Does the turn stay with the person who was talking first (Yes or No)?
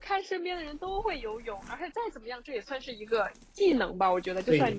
Yes